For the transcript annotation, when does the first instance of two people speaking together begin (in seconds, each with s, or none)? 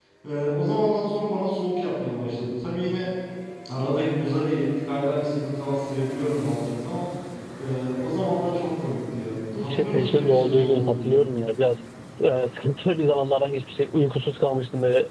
9.6 s